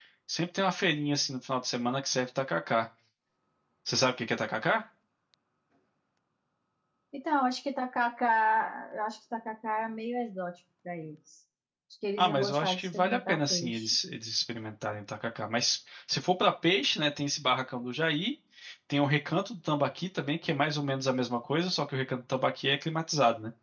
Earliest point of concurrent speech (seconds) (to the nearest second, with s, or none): 12 s